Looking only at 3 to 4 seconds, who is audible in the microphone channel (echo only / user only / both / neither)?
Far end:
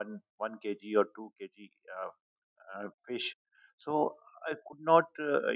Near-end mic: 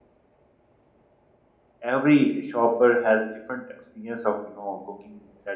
user only